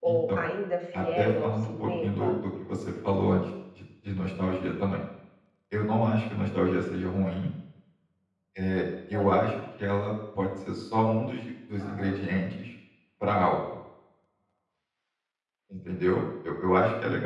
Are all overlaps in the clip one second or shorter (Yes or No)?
No